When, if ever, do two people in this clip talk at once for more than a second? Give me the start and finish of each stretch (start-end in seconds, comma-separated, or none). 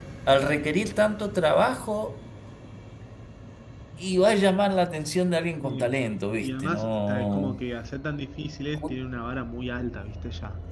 6.4-7.6